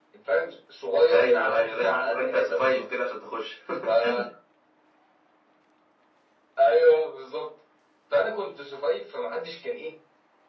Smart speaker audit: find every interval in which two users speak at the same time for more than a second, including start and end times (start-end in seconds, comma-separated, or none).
1.1-2.9